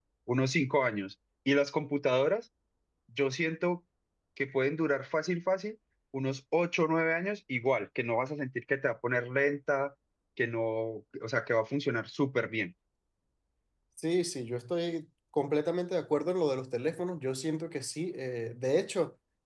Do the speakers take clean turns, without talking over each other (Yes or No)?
Yes